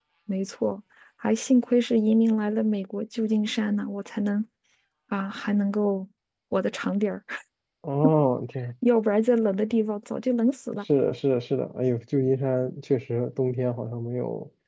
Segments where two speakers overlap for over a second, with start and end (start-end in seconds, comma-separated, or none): none